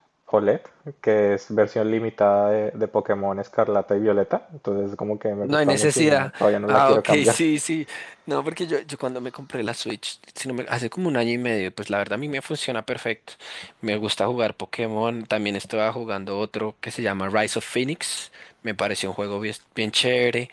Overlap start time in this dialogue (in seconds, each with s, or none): 5.4 s